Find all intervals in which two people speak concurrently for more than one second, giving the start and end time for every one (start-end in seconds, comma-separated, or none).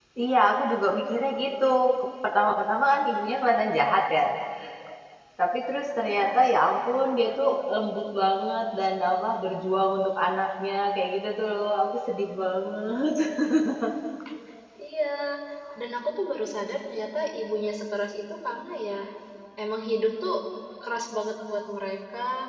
none